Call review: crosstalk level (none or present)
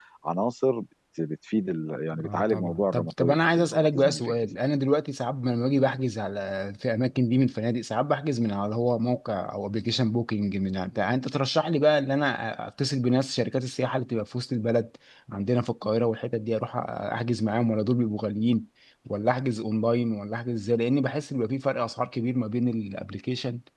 present